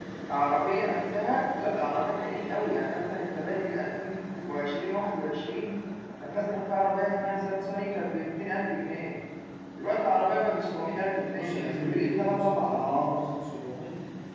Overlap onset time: 11.2 s

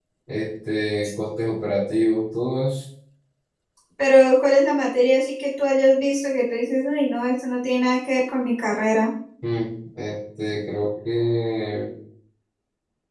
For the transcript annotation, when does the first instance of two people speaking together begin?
none

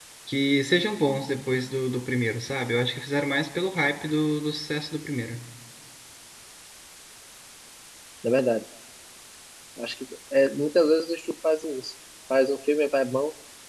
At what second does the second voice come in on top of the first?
none

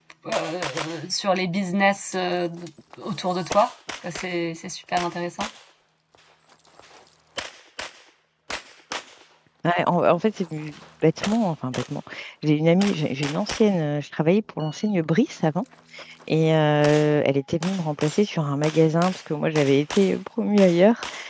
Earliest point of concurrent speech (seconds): none

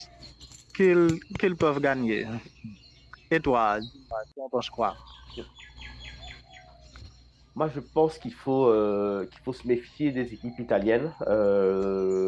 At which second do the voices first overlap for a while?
none

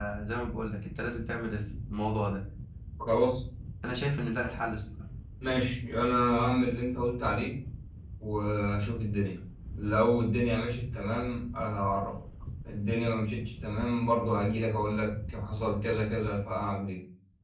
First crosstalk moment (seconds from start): none

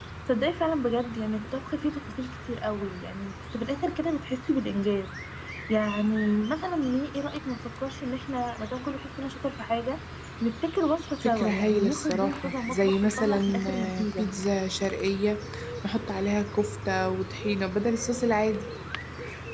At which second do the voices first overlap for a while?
11.2 s

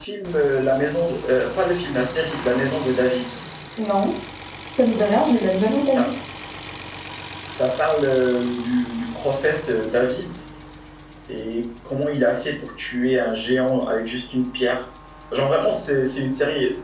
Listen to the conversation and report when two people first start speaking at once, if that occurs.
none

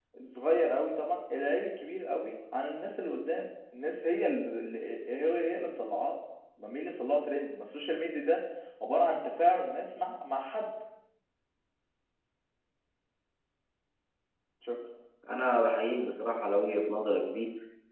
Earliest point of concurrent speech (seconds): none

